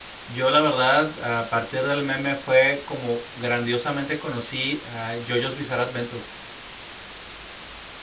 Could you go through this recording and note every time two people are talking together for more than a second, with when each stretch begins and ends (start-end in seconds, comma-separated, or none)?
none